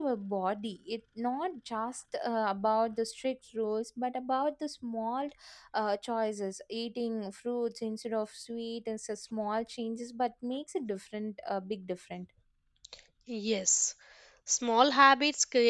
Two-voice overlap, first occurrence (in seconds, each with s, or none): none